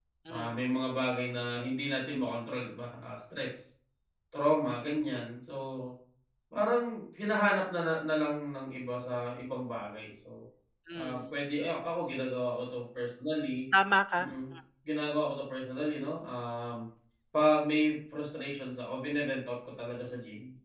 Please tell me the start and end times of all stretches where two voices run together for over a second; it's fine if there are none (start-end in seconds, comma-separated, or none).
none